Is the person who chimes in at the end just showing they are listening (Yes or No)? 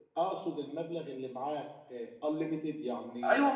No